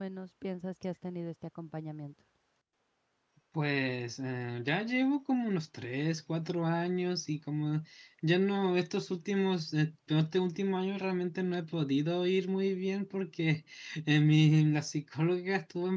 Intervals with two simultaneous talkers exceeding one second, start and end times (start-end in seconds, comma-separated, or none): none